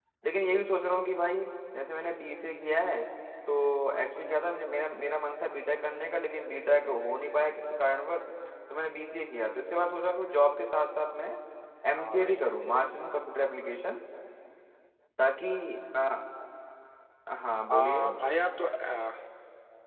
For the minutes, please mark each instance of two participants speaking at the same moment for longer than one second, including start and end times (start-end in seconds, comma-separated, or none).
none